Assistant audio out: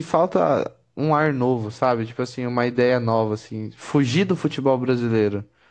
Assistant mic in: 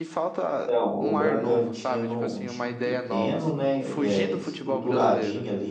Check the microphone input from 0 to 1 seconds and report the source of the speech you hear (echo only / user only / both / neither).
both